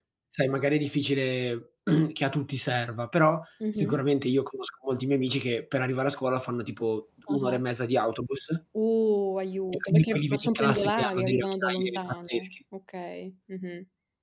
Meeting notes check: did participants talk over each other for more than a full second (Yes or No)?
Yes